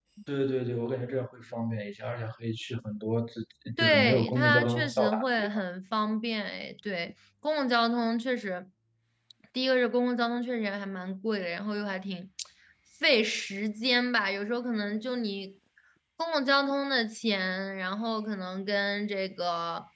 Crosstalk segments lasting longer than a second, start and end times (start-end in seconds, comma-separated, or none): 3.8-5.5